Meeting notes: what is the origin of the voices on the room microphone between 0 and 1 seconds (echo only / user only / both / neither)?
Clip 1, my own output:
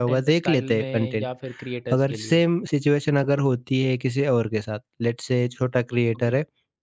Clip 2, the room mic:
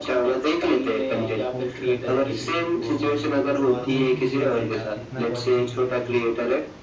echo only